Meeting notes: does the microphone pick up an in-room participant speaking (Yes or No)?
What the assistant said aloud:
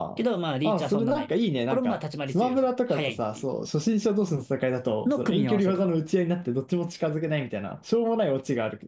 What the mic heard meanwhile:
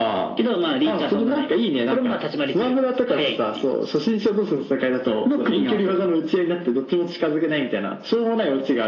No